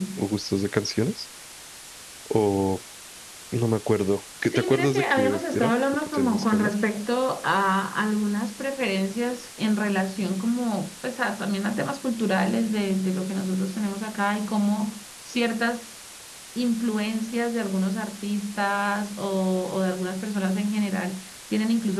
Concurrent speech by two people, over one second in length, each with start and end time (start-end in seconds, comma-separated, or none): 4.4-6.7